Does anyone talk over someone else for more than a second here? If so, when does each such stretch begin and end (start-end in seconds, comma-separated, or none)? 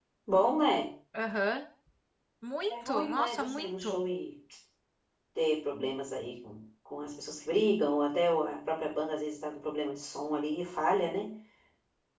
2.7-4.0